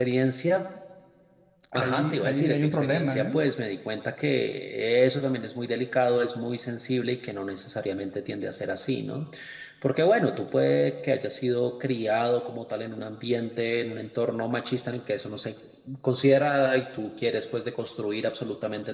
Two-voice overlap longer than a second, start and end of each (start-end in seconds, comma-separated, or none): 1.7-3.4